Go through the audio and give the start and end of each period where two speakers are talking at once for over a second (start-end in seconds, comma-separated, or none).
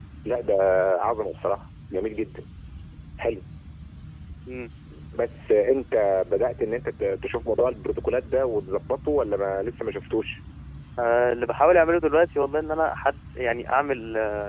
none